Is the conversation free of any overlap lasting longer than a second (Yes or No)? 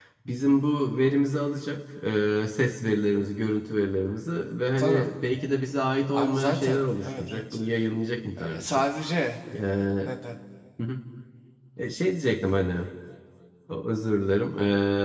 No